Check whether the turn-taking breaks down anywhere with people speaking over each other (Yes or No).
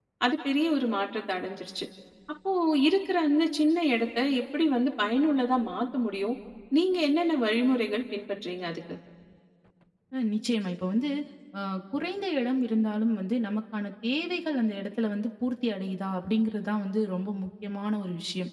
No